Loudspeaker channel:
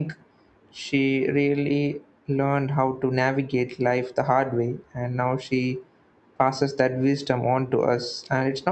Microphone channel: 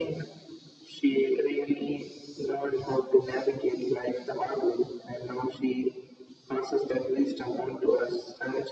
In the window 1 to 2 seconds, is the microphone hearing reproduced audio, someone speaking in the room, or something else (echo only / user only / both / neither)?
echo only